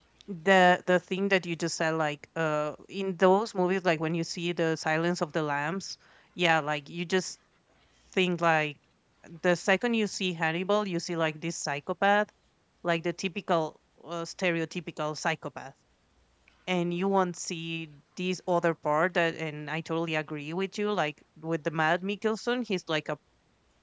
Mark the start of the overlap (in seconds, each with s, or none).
none